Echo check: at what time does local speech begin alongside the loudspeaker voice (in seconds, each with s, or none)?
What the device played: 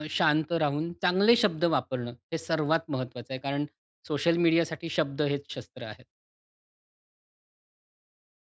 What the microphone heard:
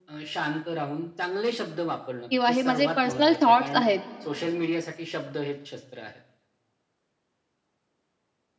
2.3 s